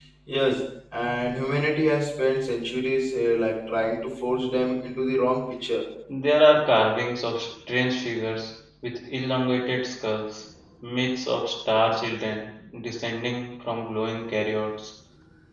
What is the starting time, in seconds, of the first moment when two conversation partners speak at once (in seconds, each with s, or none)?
none